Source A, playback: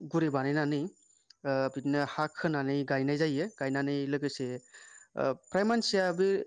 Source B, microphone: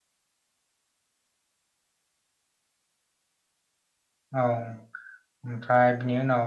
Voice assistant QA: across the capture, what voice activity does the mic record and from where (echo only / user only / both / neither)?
user only